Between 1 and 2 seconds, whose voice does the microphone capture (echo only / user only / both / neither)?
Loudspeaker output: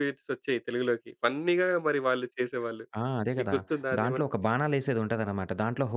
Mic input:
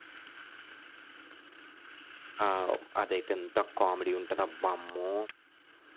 neither